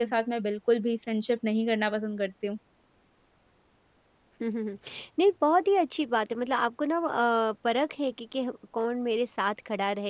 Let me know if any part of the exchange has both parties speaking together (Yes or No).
No